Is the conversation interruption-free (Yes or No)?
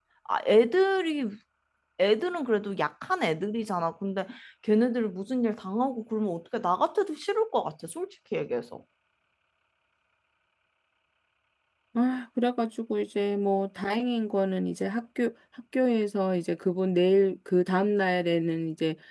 Yes